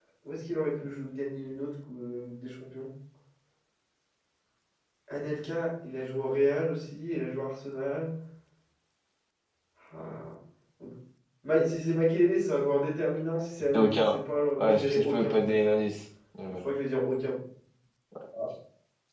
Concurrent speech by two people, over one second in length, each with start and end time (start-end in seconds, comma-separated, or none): 14.6-15.8